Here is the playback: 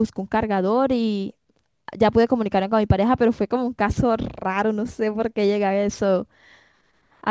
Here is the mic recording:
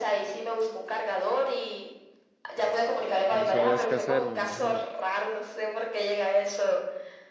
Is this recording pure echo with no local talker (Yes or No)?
No